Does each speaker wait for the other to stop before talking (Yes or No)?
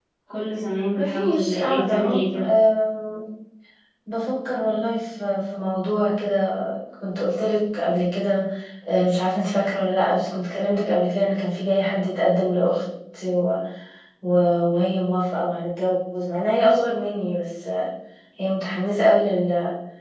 No